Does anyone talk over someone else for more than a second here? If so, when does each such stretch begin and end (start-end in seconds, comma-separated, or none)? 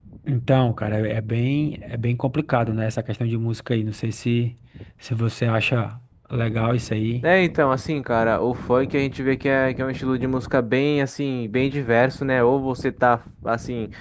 none